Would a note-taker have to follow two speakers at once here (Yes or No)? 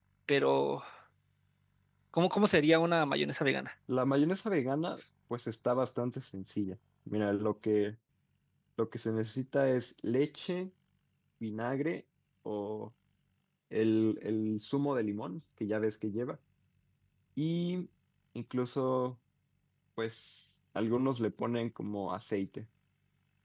No